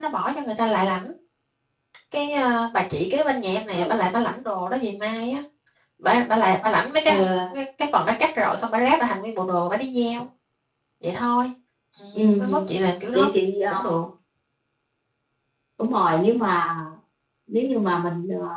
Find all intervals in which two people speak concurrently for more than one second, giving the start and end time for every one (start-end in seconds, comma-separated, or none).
none